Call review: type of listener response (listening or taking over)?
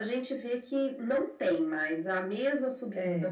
listening